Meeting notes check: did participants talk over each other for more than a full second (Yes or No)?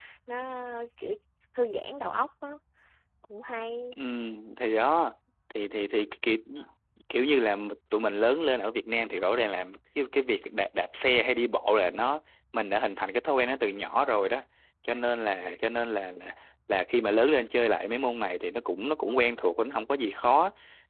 No